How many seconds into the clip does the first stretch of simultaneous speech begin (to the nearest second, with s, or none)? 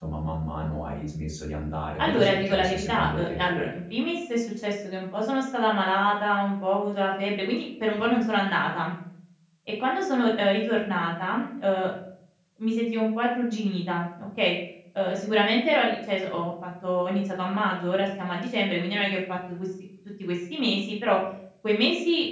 2 s